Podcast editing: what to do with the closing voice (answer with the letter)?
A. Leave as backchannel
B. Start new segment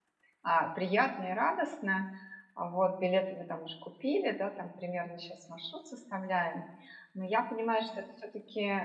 A